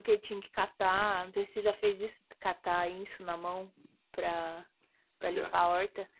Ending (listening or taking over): listening